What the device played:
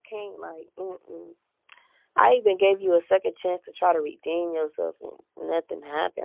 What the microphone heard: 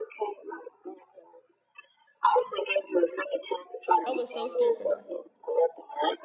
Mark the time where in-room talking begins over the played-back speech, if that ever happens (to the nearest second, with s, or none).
4 s